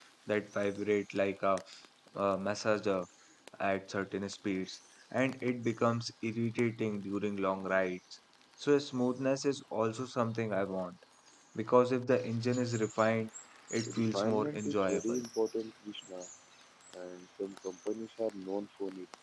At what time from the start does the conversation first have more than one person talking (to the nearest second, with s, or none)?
14 s